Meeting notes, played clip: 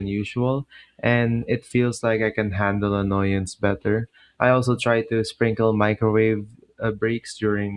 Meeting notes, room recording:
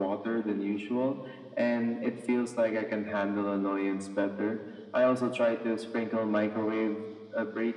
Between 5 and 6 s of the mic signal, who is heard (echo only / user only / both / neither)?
echo only